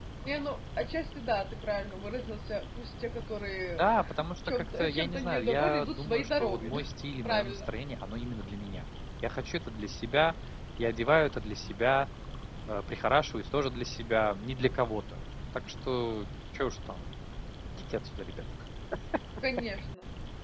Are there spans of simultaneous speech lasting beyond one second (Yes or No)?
Yes